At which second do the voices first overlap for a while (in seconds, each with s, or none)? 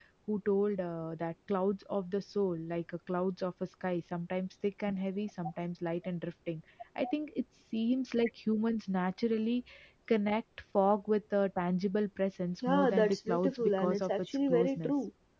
12.6 s